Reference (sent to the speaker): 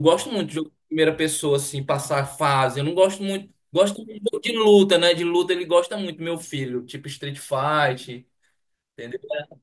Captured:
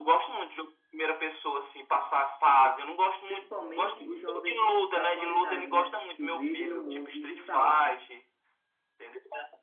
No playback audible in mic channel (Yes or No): No